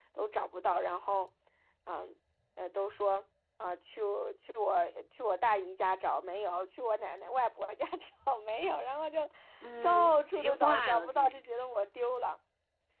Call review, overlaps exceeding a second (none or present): present